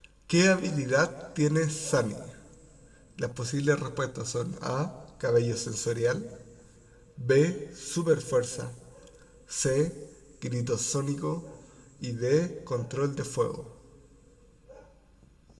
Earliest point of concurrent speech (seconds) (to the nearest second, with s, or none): none